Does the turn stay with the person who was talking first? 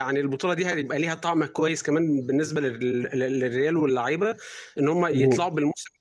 Yes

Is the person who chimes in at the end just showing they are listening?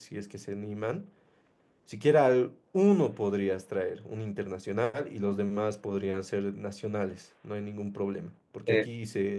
Yes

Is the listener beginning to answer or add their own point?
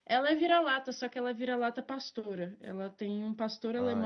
Yes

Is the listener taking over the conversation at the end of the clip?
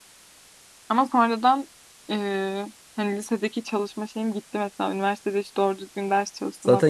Yes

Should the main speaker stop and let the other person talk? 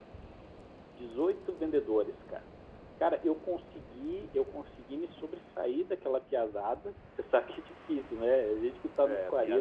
Yes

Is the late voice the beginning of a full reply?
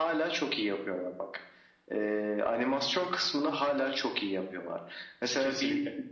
No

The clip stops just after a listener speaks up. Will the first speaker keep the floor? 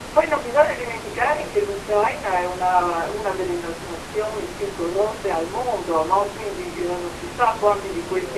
Yes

